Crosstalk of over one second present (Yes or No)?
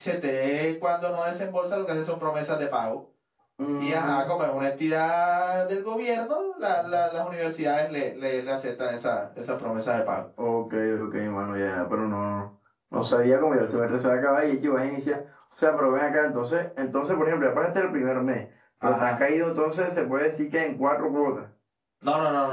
No